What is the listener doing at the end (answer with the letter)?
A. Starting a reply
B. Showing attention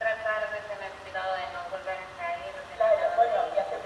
A